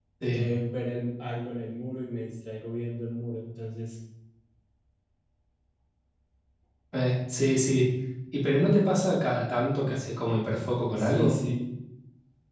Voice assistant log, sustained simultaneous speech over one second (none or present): none